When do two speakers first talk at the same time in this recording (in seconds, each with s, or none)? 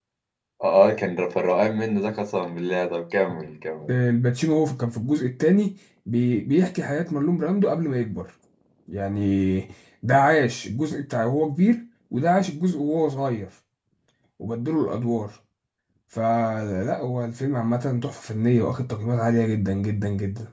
none